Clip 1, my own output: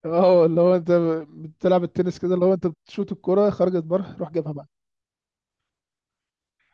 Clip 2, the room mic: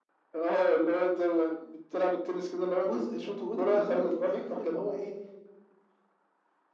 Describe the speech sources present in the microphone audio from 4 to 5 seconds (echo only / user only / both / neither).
both